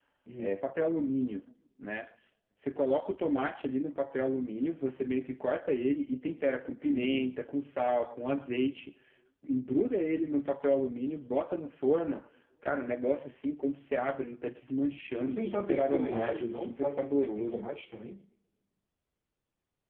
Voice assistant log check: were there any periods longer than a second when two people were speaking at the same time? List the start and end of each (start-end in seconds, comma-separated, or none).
15.1-17.6